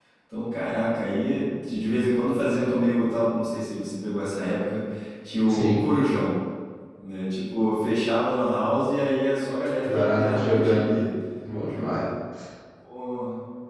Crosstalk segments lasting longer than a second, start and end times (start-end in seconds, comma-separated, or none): 9.8-11.1